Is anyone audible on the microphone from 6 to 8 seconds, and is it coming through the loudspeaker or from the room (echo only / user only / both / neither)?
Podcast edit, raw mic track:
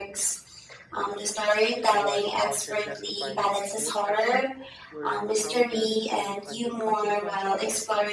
both